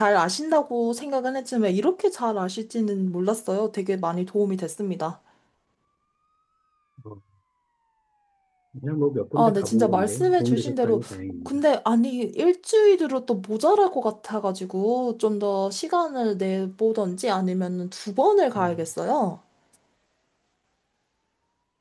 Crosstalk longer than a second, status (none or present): present